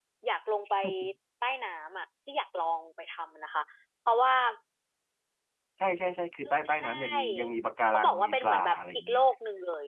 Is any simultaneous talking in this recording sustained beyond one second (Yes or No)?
Yes